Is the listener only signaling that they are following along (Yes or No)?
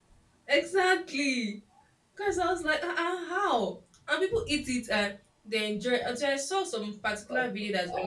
No